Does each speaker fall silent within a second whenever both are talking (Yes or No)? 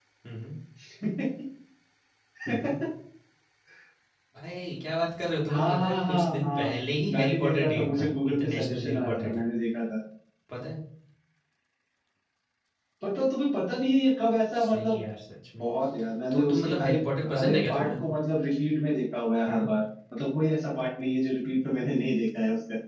No